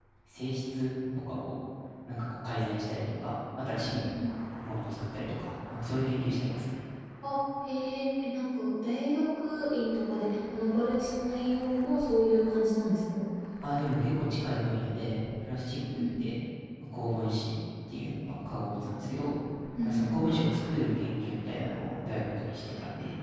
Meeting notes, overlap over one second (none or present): none